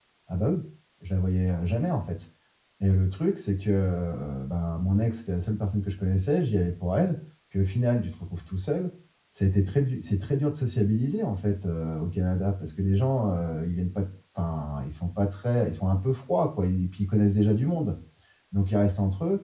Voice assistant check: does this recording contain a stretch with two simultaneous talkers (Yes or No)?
No